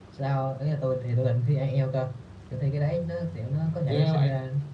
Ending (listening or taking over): listening